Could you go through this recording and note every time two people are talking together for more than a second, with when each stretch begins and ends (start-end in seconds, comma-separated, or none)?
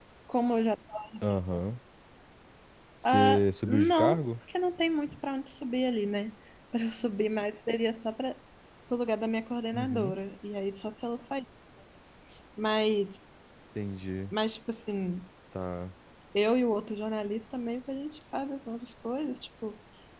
3.0-4.3